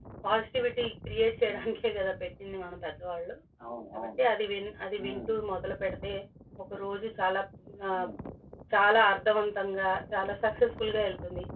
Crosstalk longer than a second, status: none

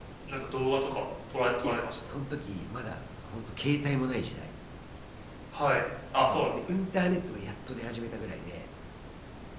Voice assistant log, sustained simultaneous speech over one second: none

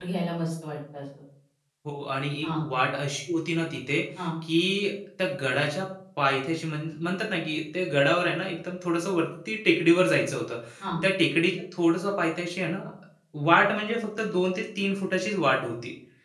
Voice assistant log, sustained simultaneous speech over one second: none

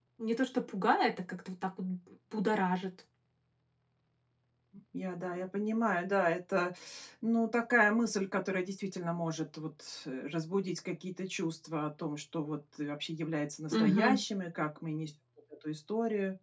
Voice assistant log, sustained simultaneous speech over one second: none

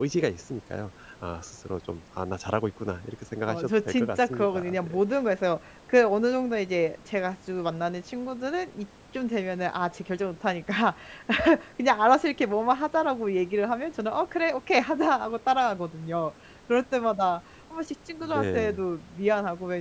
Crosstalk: present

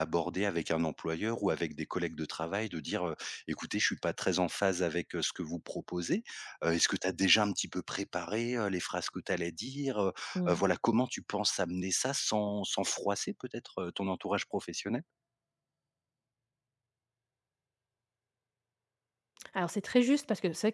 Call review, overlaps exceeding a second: none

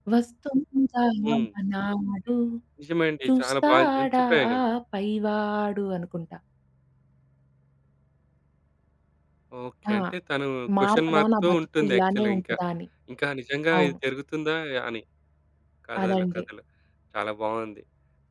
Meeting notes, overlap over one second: present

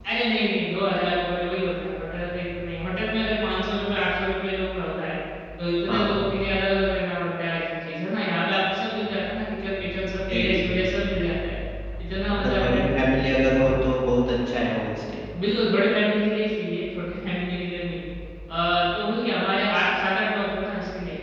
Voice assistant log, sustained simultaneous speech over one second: none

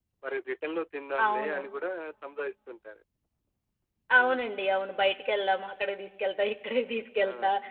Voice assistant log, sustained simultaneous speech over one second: none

